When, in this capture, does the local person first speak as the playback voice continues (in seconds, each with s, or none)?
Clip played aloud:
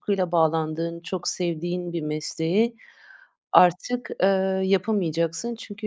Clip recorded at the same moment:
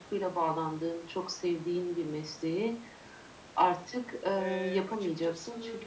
4.3 s